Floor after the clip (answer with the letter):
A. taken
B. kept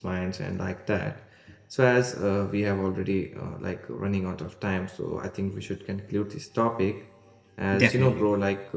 B